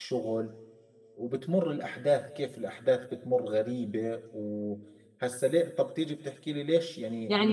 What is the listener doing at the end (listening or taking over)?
taking over